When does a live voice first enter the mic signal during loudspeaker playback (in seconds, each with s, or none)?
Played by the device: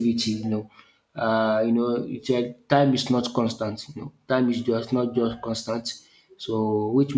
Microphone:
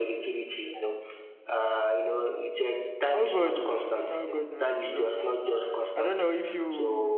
3.1 s